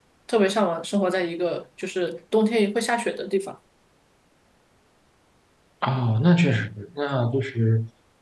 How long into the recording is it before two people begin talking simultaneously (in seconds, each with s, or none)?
none